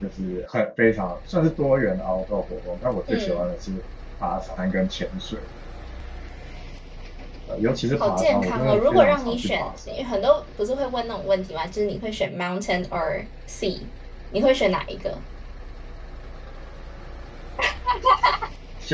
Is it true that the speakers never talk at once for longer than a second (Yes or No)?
No